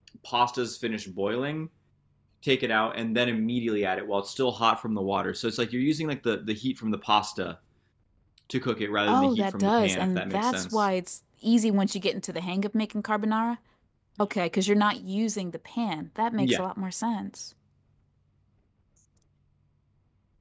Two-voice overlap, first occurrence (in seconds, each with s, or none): 9.1 s